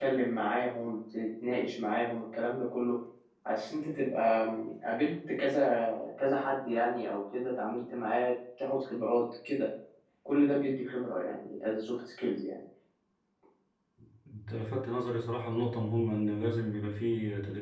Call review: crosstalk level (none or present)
none